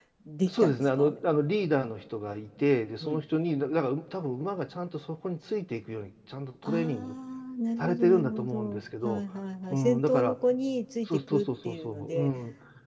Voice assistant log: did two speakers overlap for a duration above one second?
Yes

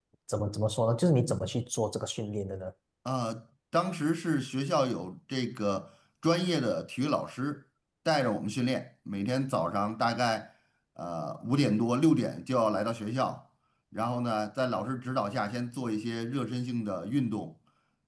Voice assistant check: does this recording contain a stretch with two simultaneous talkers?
No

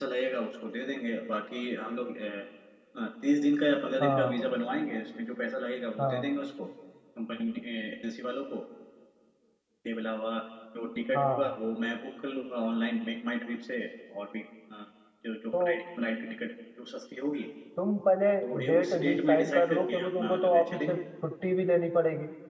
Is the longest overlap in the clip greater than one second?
Yes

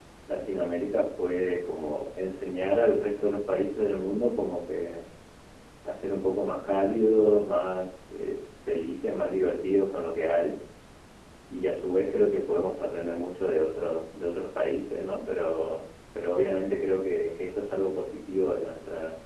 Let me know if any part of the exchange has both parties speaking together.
No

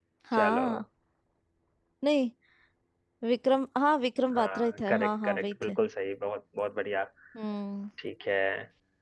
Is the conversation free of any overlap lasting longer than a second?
No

